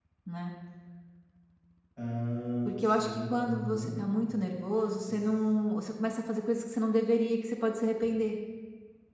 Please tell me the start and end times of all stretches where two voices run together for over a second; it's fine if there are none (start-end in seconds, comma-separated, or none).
2.6-3.9